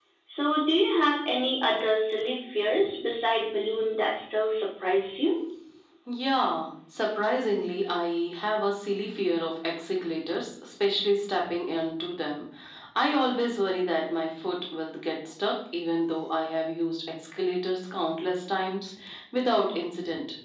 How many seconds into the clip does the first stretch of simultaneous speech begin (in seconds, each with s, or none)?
none